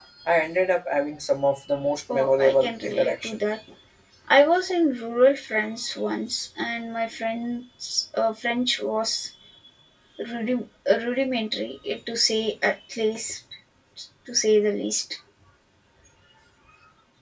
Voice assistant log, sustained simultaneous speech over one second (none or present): present